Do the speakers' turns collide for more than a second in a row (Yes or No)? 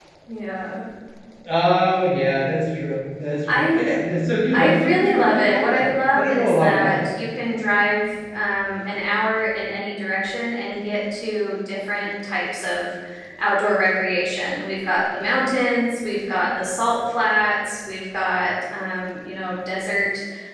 Yes